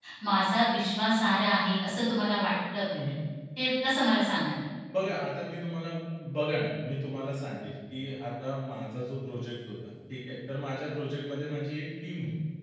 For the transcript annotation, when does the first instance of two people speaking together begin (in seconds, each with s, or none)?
none